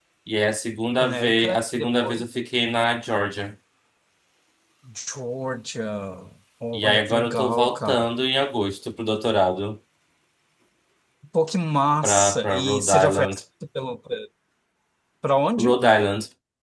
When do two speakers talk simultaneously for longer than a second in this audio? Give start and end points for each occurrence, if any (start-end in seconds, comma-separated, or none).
1.0-2.2, 6.7-8.1, 12.0-13.4